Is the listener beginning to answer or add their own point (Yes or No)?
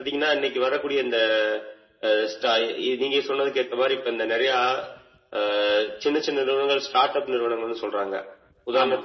No